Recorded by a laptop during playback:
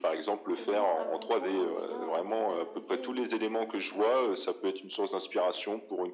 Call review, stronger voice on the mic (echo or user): echo